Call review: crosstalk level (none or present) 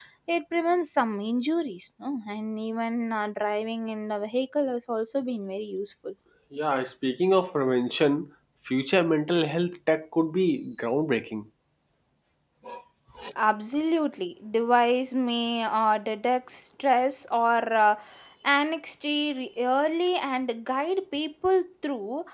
none